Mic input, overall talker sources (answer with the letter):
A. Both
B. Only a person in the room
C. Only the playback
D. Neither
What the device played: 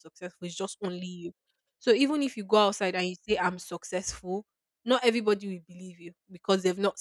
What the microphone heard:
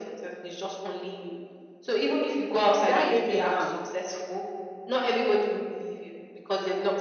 A